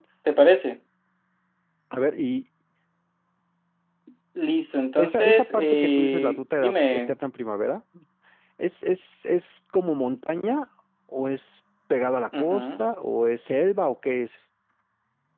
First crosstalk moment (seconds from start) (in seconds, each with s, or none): 5.0 s